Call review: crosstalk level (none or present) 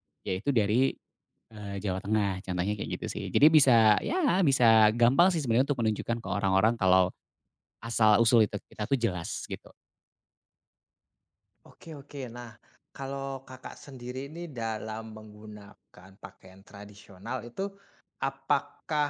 none